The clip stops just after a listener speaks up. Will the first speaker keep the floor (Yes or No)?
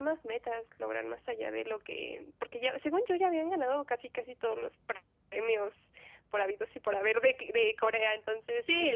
No